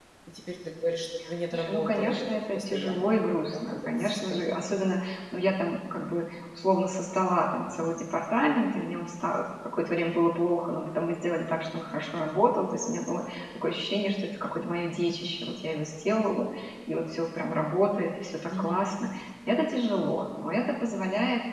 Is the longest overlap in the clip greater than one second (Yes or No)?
Yes